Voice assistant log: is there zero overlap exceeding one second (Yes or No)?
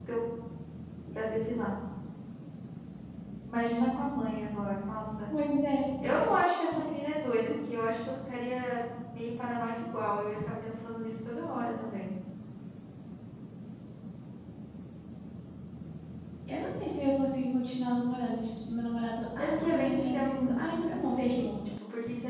No